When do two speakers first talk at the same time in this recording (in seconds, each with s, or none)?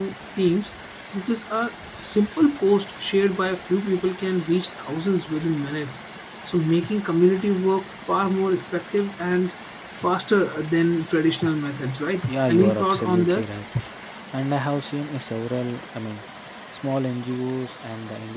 12.3 s